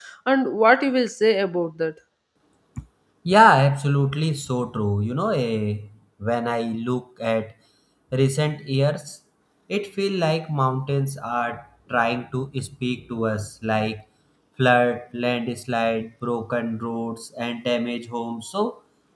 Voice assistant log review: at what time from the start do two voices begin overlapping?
none

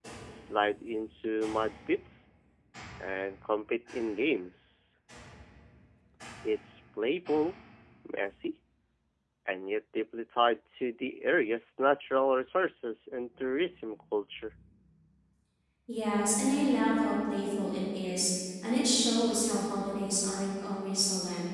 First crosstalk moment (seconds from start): none

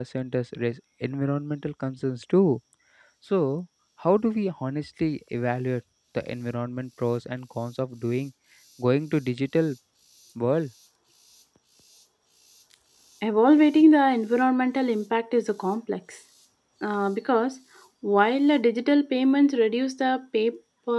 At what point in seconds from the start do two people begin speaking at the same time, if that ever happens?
none

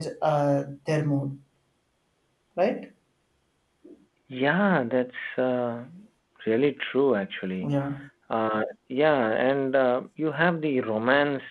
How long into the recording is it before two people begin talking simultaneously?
none

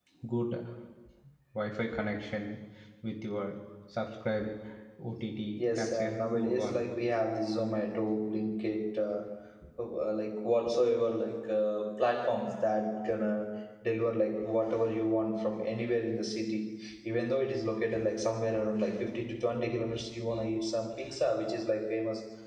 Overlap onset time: 5.6 s

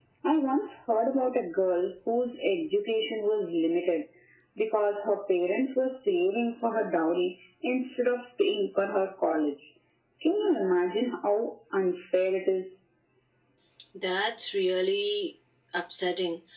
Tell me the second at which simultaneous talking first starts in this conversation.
none

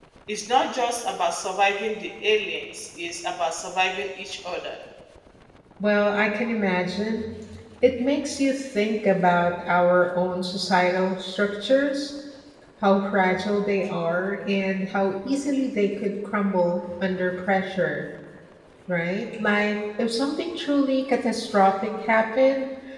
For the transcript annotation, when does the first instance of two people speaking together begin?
none

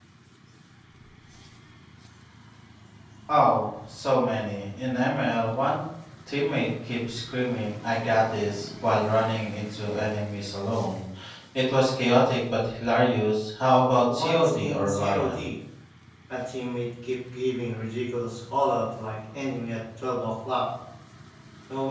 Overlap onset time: 14.1 s

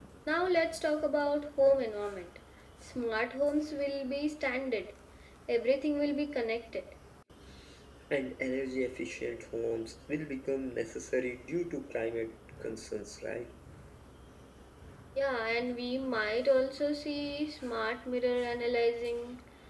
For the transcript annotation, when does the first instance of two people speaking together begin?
none

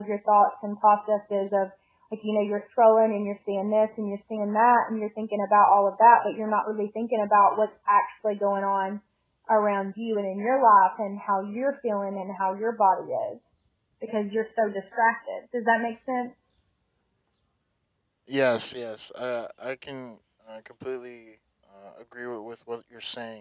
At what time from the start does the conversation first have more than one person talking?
none

